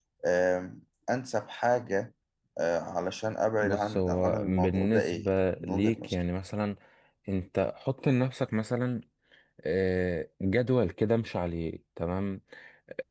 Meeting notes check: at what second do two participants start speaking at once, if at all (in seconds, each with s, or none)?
3.6 s